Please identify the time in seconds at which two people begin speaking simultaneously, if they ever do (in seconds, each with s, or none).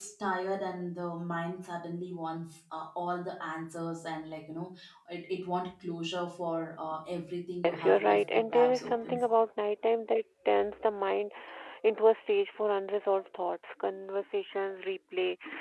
7.6 s